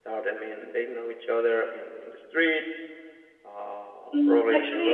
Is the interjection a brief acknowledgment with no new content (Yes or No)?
No